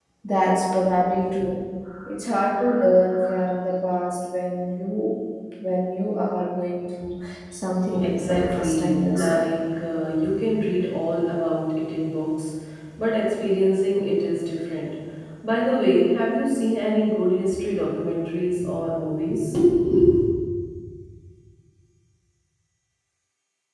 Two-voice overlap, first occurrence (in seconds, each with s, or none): 8.0 s